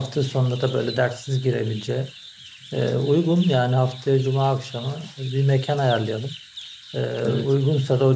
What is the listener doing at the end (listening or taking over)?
listening